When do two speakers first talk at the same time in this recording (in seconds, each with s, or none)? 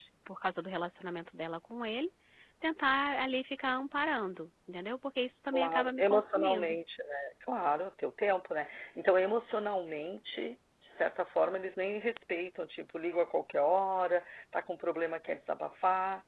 5.5 s